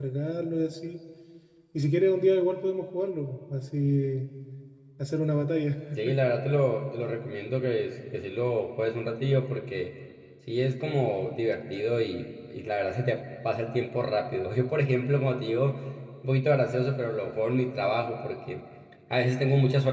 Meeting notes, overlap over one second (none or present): none